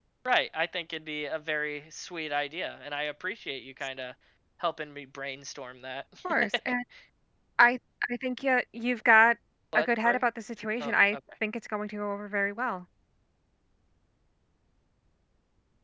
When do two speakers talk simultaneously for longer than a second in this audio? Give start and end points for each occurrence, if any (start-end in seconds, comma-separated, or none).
none